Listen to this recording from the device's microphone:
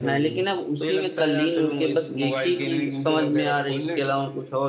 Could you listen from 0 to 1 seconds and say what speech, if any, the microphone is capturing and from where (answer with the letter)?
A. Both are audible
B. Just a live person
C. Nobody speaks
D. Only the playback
A